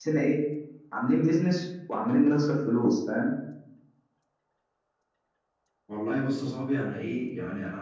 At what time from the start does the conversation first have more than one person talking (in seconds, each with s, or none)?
none